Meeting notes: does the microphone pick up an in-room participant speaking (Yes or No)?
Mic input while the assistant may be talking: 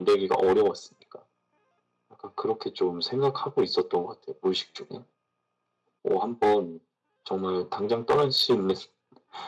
No